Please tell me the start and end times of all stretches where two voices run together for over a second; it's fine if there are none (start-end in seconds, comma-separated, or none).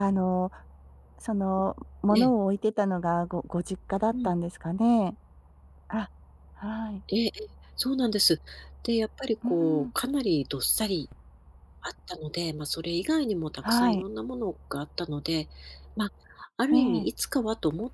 none